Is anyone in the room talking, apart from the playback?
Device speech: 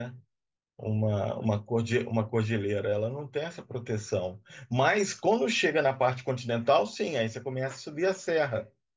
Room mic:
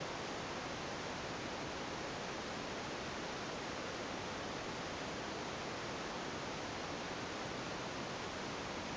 No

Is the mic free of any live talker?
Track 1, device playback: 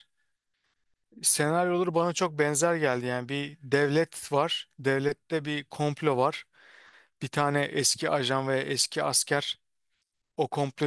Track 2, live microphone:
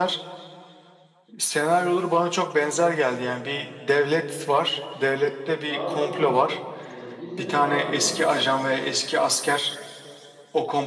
No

